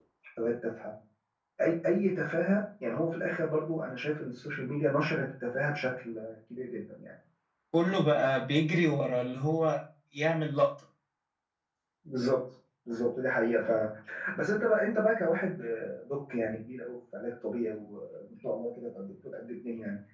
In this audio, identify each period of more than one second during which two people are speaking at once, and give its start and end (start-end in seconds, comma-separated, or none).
none